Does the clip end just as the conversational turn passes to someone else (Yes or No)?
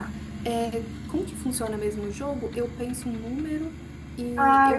Yes